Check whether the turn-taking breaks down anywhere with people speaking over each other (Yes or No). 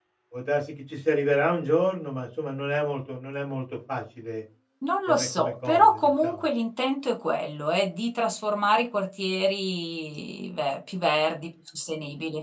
Yes